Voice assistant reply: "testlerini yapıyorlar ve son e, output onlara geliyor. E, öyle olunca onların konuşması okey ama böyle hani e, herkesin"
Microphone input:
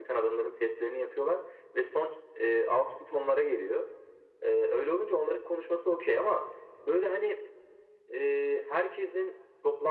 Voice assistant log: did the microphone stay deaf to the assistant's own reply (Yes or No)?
No